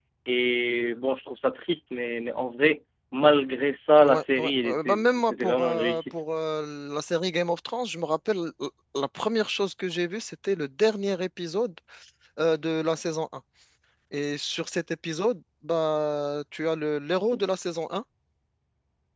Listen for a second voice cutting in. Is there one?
Yes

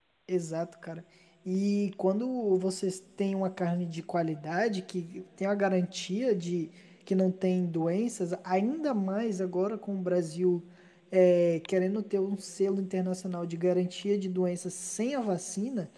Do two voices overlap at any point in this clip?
No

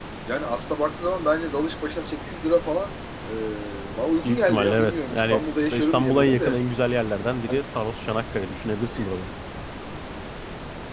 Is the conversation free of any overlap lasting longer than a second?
No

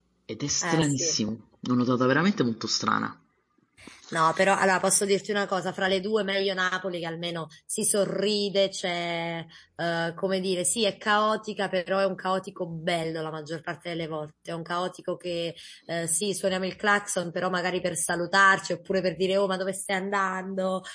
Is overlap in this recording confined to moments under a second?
Yes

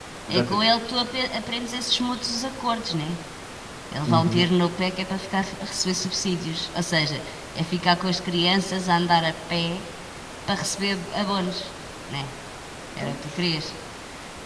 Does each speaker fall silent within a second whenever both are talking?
Yes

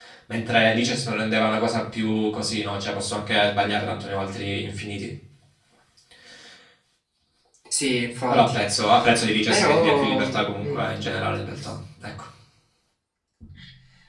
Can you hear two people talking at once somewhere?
Yes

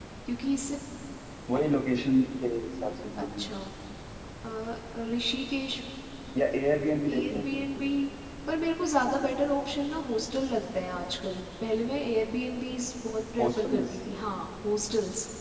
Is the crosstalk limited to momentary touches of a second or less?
Yes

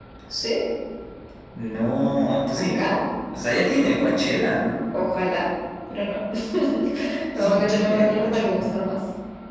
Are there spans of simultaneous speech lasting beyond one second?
Yes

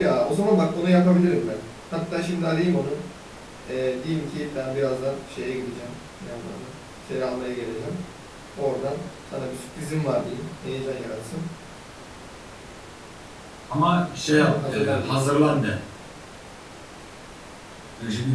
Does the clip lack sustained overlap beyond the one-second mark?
No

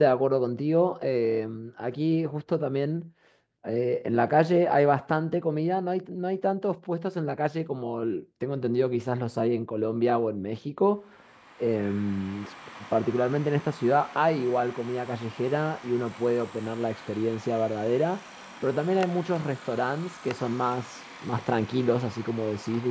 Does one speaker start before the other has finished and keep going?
No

